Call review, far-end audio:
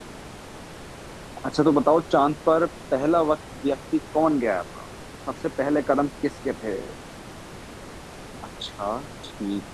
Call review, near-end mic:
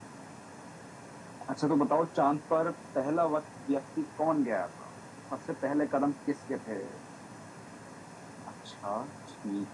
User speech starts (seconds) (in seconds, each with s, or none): none